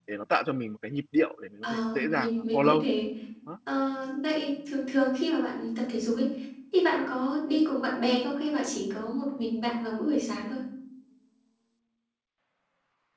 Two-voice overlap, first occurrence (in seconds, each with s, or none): 1.6 s